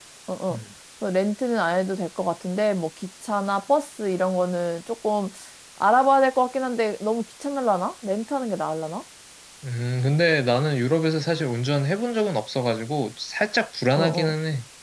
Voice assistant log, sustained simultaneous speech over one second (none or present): none